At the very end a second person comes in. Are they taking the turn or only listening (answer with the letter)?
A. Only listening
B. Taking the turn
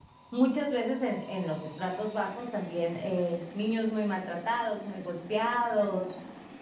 A